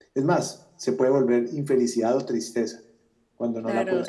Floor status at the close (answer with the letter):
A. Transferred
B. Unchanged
A